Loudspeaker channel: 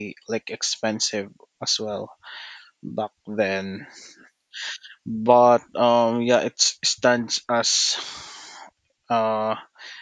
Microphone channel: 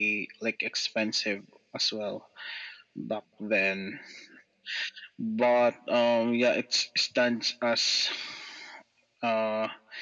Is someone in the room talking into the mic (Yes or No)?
No